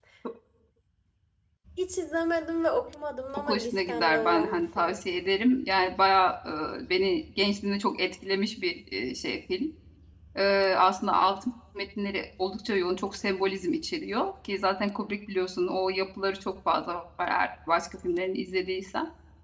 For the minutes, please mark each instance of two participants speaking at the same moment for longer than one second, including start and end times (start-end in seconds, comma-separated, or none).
3.4-5.0